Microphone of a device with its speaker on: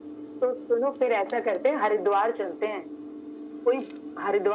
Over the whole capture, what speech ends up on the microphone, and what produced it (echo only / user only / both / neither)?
echo only